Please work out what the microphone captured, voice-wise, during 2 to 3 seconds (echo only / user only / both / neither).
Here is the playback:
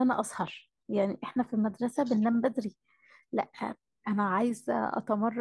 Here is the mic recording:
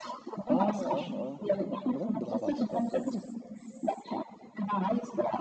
both